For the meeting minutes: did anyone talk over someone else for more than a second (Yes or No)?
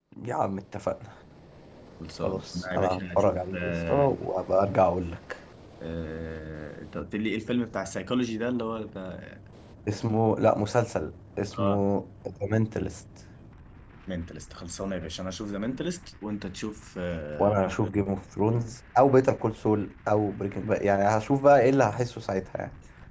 Yes